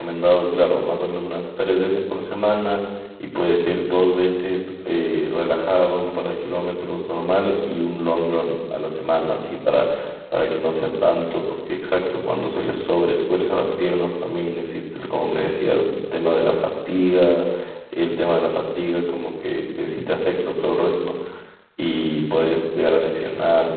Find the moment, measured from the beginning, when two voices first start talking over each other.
none

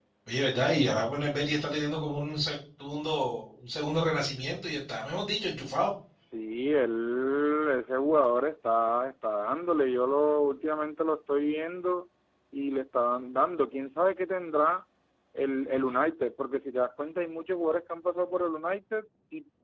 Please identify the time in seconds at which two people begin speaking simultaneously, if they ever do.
none

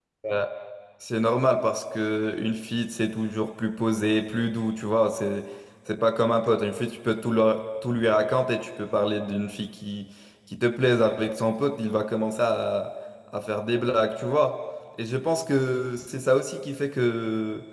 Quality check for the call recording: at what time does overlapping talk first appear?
none

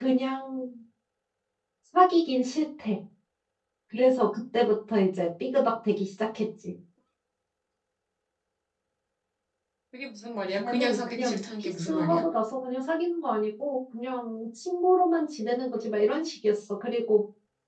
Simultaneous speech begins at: 11 s

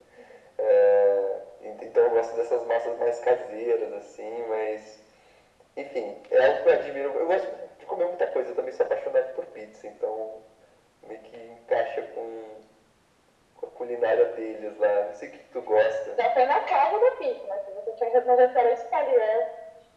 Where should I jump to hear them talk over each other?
none

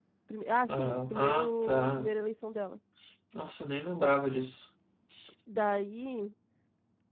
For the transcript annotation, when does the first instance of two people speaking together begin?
1 s

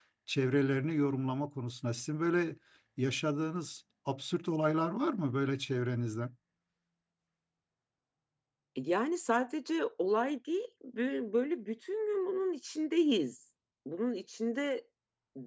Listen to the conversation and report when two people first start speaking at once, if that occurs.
none

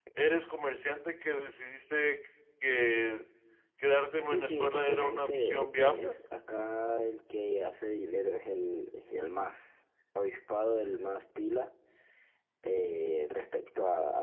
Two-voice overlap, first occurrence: 4 s

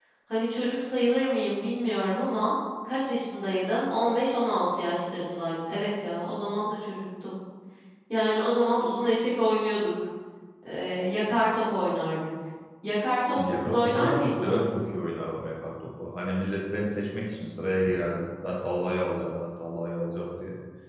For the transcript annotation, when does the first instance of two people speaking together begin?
13 s

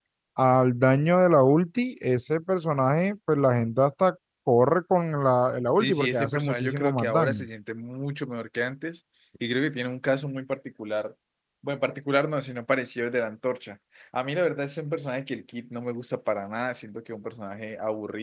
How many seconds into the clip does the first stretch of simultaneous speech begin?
6 s

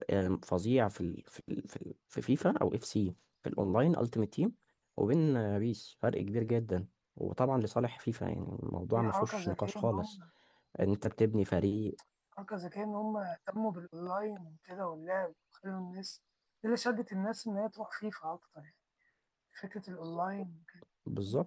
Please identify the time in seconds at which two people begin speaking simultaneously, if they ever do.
9 s

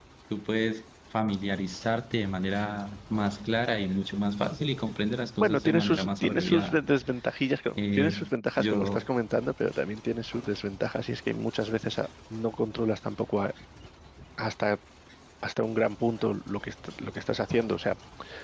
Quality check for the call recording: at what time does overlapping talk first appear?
5 s

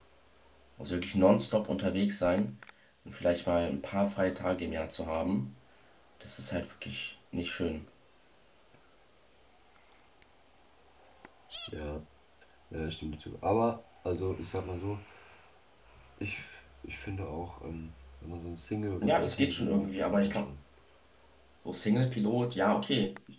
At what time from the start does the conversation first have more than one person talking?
19 s

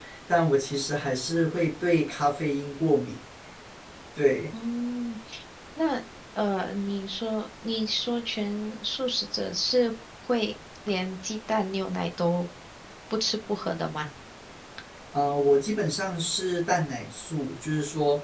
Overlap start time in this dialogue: none

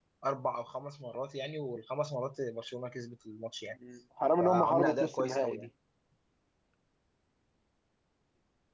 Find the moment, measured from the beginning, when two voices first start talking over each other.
4 s

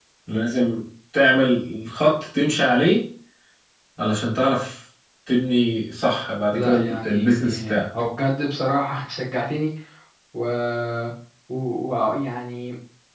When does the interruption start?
7 s

